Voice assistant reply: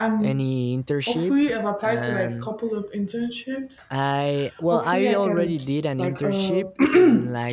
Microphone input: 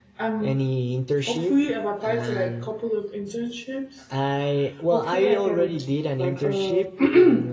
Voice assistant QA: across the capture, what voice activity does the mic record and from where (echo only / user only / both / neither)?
echo only